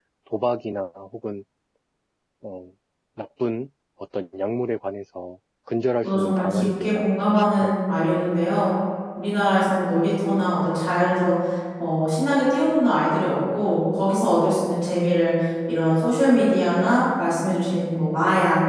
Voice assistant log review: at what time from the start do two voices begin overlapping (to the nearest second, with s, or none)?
6 s